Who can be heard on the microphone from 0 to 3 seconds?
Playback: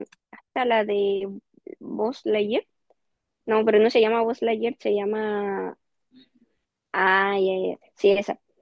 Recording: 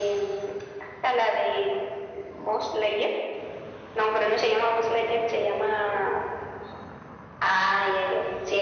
echo only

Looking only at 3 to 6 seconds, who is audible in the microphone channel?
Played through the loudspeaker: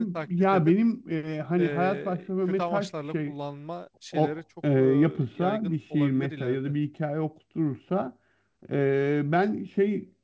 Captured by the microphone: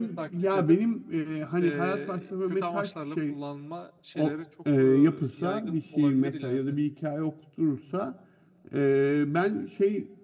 echo only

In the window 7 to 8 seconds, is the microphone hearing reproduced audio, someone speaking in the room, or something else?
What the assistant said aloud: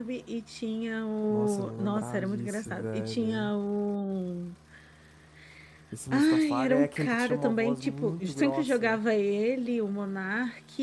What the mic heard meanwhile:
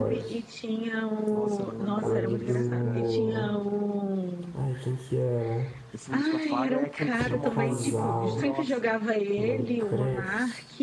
both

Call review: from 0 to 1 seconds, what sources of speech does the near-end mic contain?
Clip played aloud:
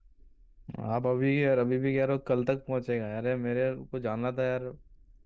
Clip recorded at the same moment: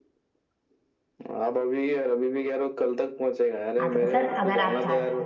neither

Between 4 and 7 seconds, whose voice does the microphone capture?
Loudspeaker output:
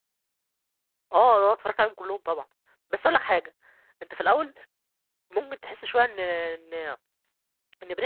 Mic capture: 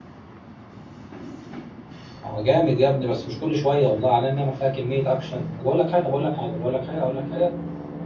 user only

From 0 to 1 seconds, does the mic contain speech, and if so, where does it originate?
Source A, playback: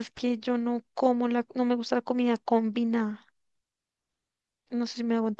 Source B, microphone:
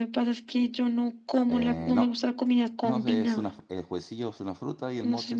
echo only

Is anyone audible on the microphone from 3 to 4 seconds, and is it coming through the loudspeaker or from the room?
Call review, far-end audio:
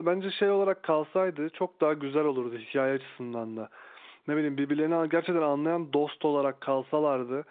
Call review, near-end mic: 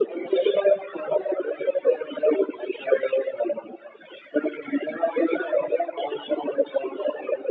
echo only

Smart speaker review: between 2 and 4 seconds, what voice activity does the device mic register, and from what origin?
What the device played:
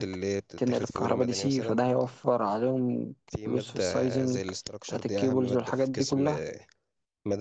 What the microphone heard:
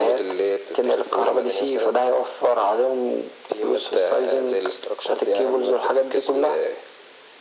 echo only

